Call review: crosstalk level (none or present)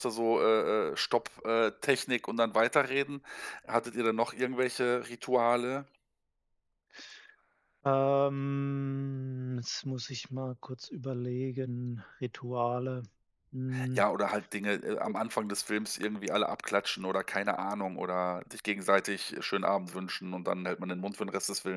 none